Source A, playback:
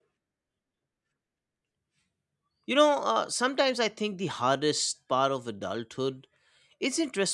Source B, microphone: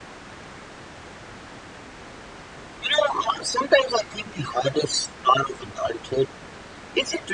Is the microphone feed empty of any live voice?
Yes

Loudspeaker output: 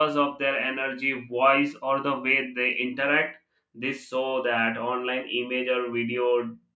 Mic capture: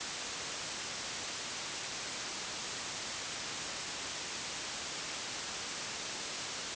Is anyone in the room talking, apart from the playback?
No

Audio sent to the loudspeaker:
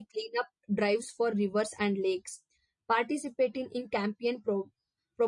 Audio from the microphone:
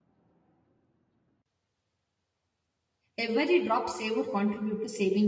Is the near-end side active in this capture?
Yes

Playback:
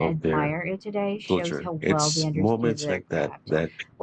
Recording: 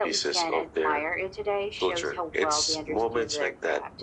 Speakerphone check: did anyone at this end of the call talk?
No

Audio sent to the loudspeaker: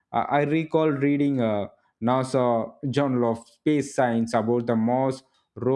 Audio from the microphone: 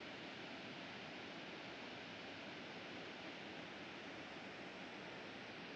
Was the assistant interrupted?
No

